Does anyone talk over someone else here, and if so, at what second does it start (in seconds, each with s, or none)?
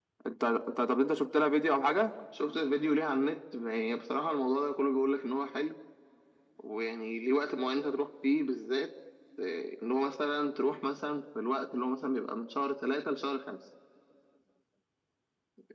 none